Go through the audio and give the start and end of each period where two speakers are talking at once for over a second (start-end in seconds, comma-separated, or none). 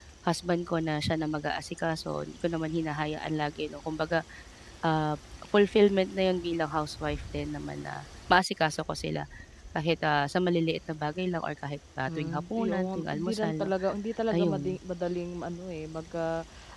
12.1-13.7